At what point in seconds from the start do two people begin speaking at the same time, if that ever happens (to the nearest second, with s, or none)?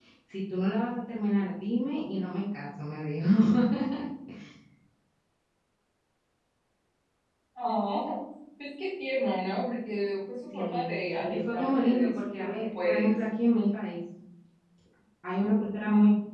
11 s